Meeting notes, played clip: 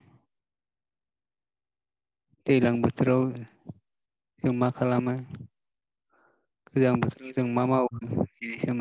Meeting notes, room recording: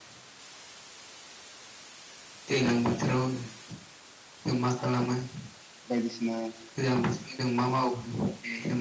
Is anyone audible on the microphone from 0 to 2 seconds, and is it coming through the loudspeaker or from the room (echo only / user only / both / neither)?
neither